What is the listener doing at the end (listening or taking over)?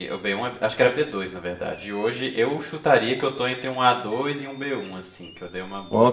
taking over